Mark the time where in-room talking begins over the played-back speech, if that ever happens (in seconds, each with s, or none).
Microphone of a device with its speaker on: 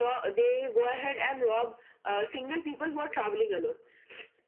none